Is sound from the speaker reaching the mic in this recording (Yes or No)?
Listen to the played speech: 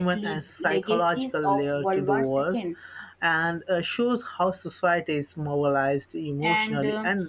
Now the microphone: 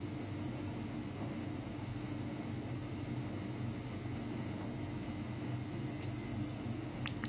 No